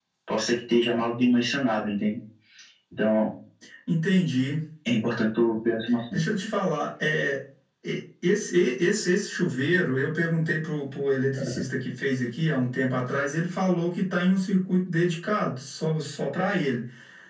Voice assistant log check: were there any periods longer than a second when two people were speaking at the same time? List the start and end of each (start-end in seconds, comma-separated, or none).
none